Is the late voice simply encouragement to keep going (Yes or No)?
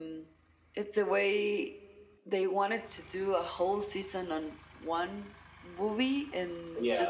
Yes